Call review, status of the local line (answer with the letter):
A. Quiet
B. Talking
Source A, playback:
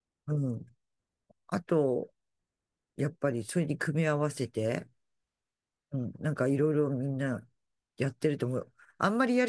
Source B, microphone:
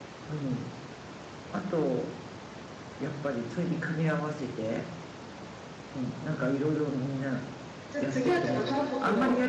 B